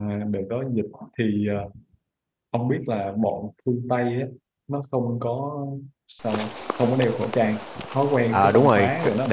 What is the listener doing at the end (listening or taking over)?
taking over